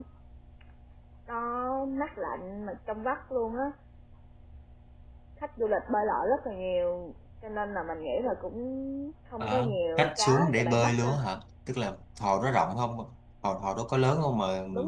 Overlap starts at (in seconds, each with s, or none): 9.4 s